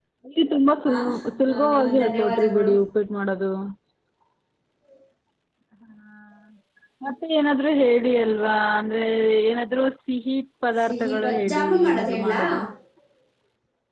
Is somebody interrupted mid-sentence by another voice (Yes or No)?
Yes